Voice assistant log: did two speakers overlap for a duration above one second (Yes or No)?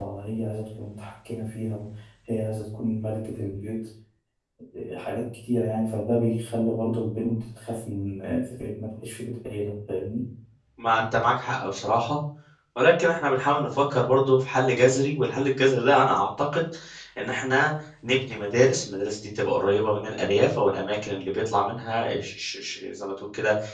No